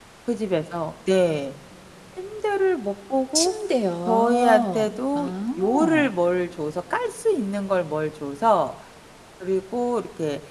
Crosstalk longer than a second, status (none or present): present